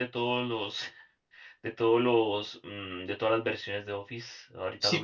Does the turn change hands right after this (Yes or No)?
Yes